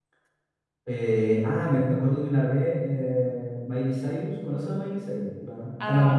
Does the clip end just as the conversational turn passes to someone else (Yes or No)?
Yes